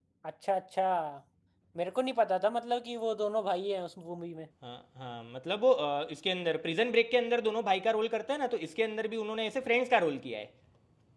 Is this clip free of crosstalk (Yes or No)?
Yes